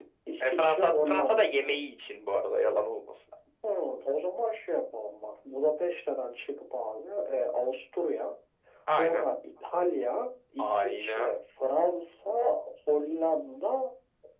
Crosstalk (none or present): present